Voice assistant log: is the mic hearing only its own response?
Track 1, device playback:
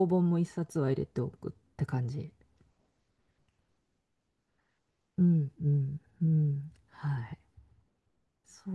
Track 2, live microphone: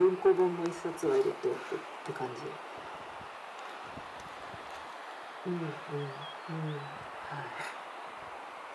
Yes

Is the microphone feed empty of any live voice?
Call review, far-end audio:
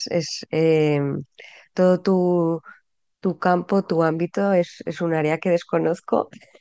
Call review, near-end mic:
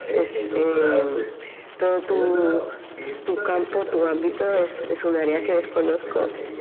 No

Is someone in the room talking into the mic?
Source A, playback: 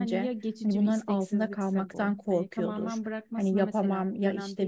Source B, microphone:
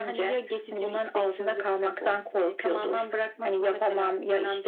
No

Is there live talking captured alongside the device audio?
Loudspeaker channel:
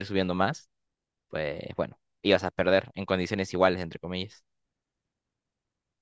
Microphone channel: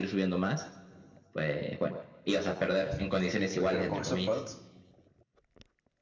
Yes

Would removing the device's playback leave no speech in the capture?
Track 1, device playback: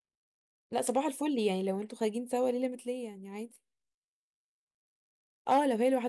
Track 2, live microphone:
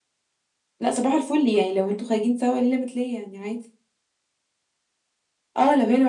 Yes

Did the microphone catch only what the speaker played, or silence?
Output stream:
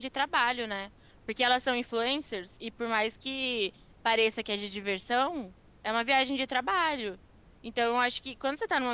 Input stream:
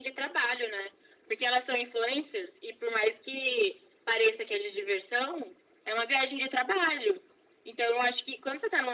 Yes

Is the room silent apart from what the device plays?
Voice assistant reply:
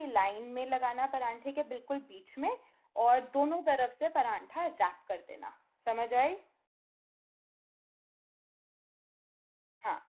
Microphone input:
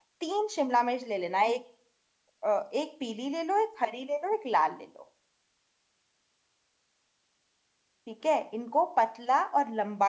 No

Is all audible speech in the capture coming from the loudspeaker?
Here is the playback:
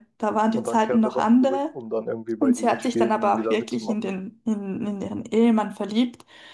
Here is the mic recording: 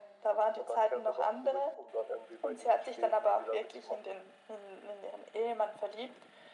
Yes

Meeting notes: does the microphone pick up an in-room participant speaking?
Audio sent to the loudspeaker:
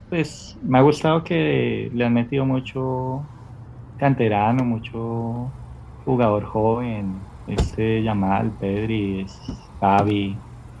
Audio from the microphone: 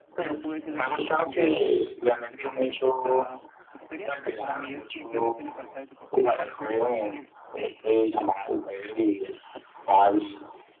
Yes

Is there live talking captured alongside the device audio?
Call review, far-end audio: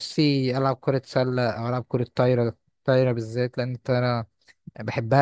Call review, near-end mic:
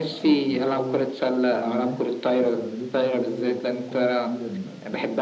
Yes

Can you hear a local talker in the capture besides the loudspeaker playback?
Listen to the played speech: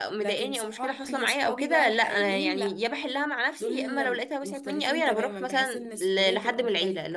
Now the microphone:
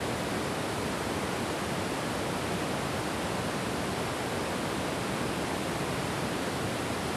No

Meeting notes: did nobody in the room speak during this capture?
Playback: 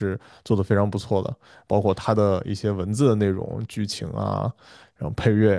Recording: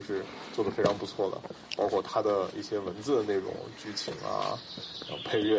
Yes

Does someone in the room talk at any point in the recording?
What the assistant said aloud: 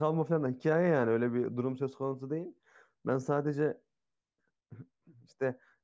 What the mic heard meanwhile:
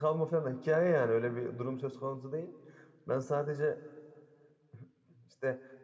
No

